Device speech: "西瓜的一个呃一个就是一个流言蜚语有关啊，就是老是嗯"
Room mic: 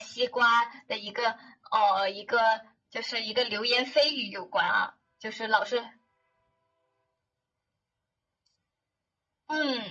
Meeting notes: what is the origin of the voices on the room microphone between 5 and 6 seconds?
echo only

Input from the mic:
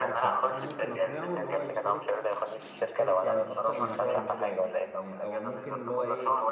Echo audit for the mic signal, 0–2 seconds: both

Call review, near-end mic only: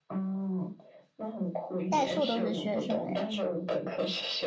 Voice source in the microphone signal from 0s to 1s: echo only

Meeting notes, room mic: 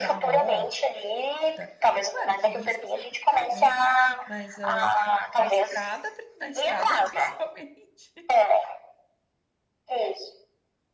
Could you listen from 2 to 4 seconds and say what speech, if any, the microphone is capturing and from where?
both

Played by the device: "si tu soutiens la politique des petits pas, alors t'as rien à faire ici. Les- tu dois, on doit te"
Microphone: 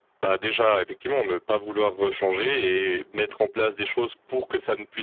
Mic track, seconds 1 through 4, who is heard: user only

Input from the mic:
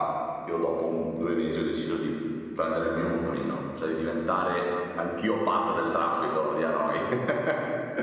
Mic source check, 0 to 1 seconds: echo only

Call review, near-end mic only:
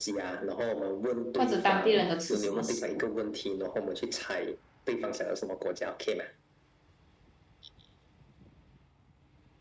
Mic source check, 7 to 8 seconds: neither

